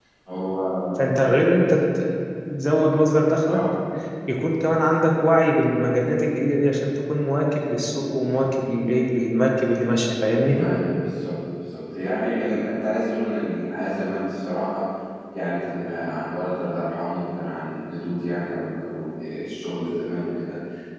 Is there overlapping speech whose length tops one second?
No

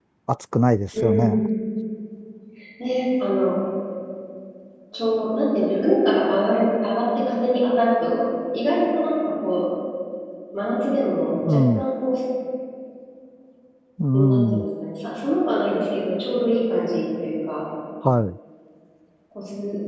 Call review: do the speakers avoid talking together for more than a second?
Yes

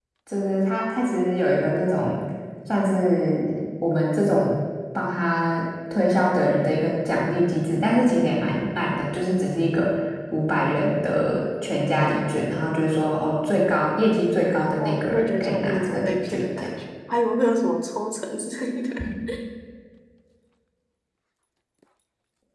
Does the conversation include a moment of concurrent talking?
Yes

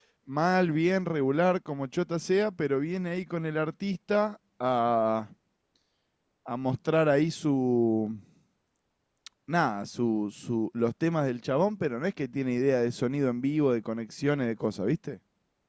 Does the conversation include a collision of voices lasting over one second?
No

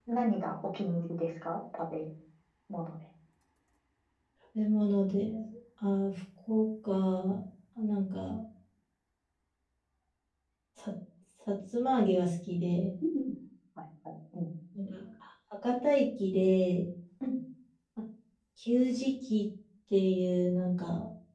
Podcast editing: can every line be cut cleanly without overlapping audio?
Yes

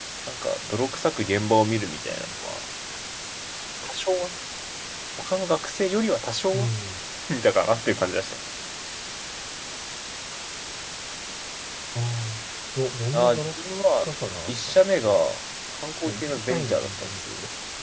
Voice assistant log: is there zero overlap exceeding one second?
No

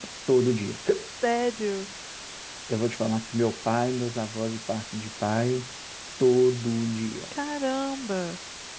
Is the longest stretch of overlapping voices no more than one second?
Yes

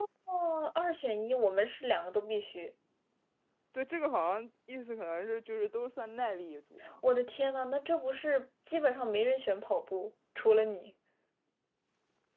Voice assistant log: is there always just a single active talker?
Yes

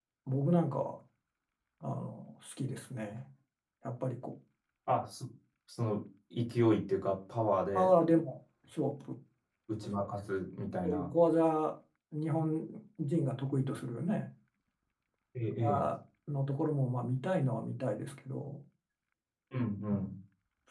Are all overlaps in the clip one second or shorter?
Yes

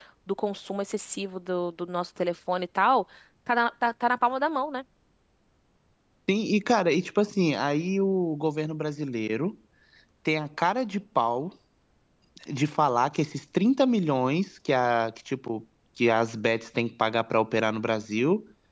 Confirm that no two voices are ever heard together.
Yes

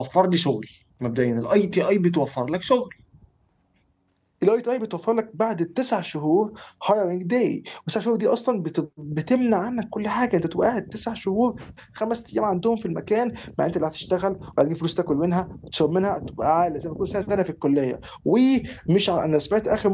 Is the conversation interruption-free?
Yes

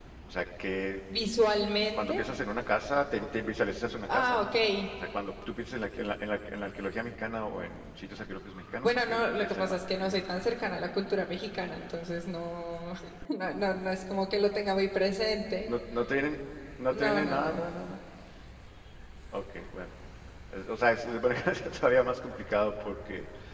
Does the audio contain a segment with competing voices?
Yes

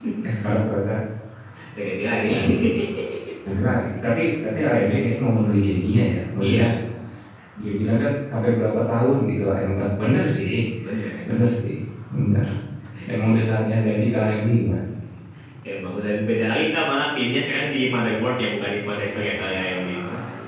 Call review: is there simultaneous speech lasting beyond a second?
No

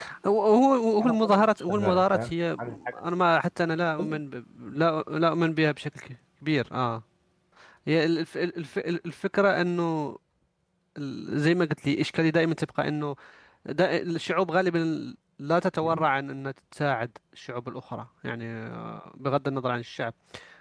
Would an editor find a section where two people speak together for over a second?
Yes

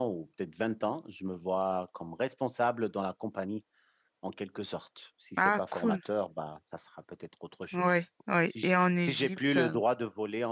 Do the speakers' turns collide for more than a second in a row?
Yes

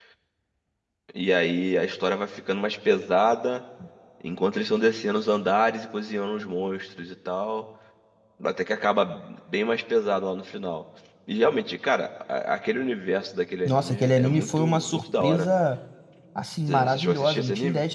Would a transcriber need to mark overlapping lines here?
Yes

